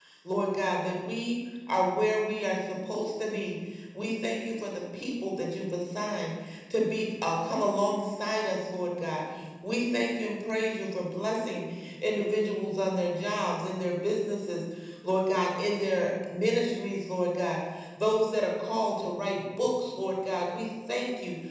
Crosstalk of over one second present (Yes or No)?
No